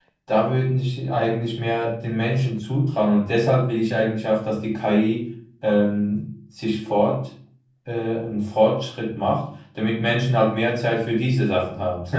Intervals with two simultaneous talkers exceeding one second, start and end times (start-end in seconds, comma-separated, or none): none